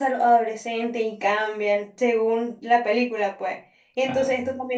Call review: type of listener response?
listening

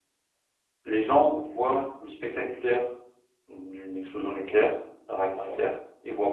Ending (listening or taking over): listening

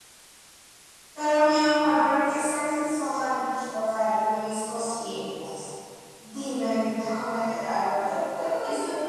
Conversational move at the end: taking over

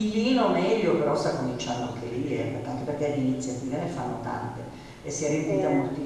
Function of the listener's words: listening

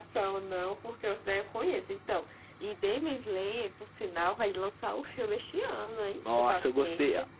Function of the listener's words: taking over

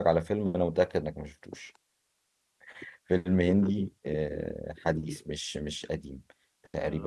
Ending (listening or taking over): listening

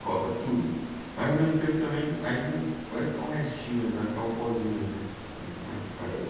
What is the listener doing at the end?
taking over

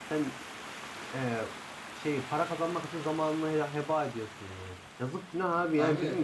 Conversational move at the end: listening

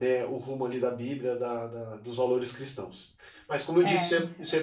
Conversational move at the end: taking over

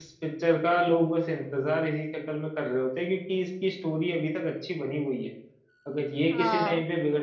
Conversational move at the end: listening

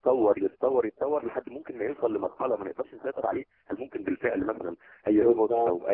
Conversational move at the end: taking over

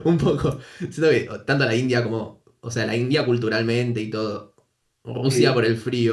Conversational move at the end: listening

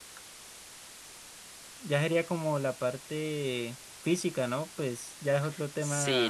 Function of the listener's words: taking over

